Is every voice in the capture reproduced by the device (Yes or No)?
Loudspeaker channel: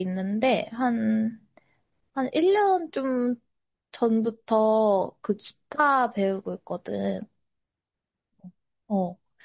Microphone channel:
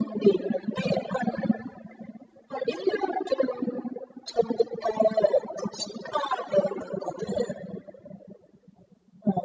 Yes